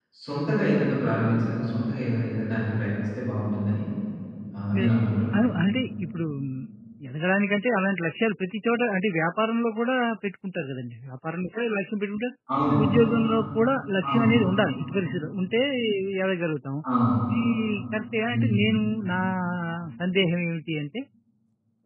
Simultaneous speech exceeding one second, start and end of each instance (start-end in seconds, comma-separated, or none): none